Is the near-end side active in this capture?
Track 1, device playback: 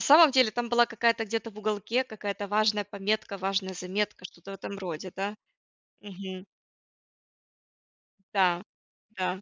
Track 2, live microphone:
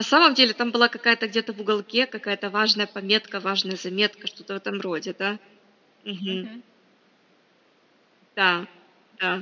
Yes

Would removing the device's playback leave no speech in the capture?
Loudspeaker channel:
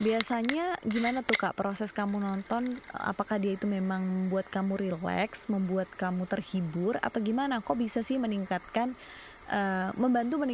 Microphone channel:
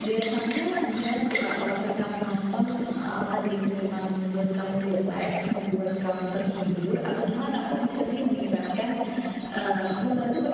Yes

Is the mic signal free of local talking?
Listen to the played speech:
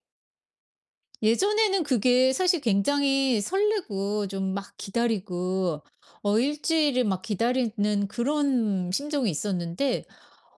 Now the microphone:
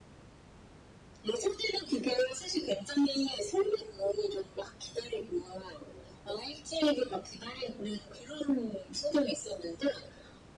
Yes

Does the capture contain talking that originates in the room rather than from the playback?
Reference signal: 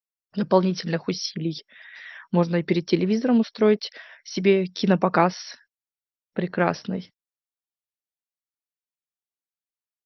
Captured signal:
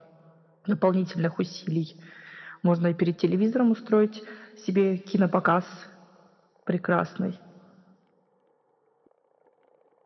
No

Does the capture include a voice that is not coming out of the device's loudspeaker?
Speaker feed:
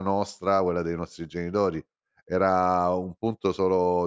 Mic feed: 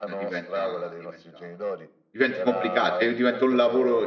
Yes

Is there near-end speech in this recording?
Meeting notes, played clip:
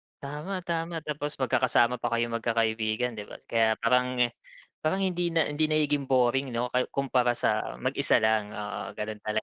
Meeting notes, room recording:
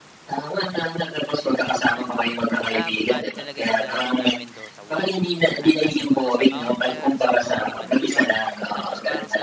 Yes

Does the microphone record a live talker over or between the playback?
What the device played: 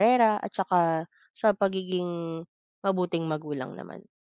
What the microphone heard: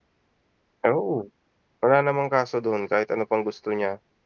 Yes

